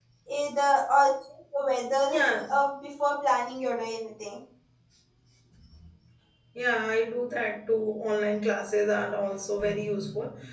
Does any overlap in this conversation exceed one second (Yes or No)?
No